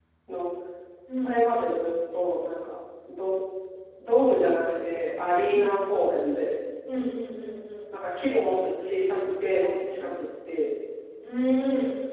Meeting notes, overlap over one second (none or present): none